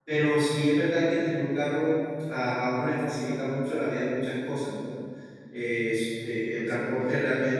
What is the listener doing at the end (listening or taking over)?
listening